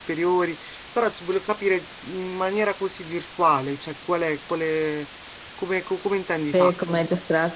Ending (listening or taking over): taking over